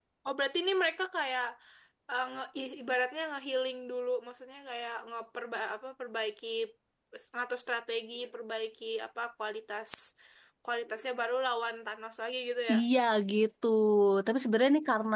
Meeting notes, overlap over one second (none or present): none